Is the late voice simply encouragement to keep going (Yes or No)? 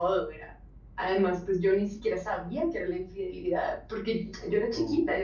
Yes